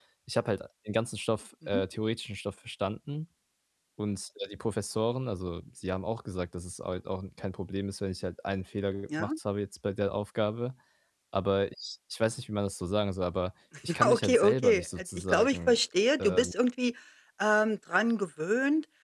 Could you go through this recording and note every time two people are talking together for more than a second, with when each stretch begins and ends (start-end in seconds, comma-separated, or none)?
14.1-15.8